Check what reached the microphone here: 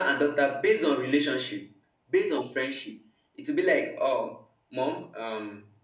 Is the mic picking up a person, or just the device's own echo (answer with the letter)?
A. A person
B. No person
B